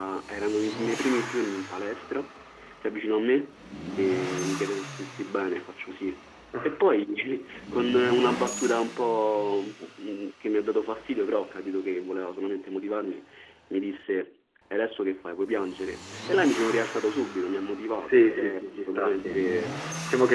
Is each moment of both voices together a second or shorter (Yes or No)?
No